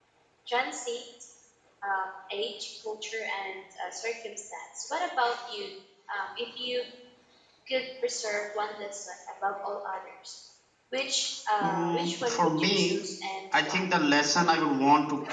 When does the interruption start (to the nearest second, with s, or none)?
12 s